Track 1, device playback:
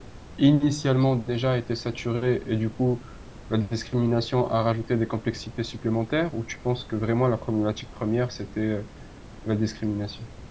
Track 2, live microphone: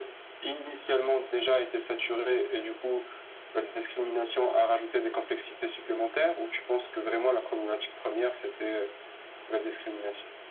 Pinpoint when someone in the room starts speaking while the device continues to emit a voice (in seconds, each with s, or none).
none